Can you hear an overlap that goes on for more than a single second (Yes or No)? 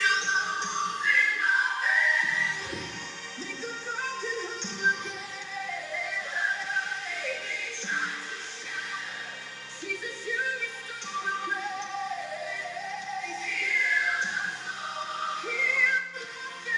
No